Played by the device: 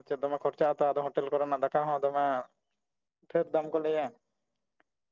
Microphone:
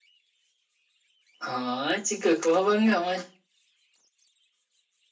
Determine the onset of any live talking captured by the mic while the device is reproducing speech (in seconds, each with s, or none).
1.4 s